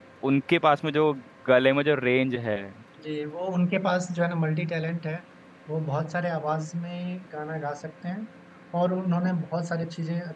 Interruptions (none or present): none